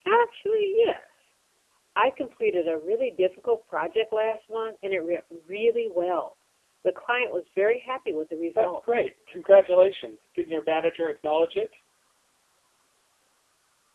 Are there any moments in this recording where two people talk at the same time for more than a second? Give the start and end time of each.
none

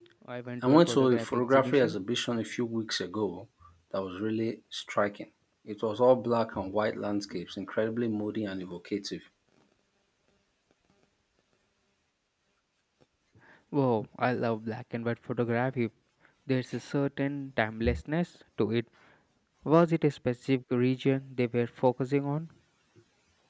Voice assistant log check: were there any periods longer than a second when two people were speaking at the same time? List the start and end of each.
0.6-2.0

